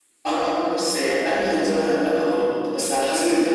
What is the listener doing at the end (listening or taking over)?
listening